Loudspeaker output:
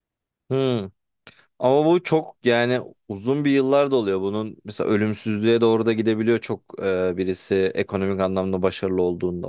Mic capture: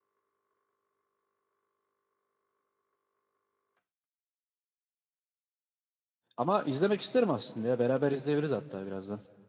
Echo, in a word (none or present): none